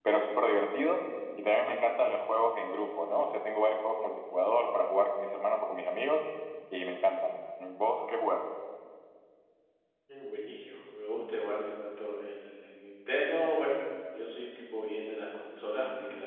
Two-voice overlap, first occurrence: none

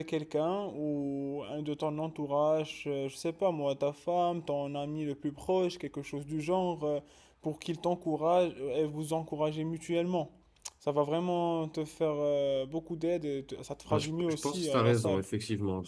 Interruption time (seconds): 14 s

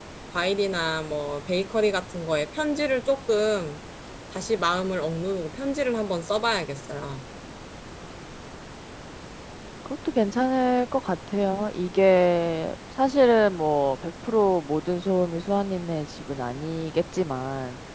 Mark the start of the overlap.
none

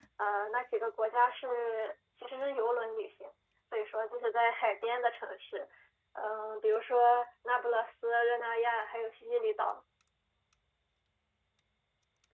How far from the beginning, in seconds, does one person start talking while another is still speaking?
none

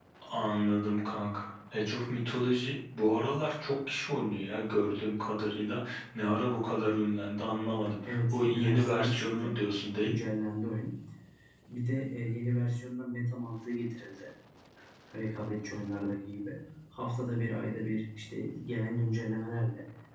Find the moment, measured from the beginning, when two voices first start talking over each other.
8 s

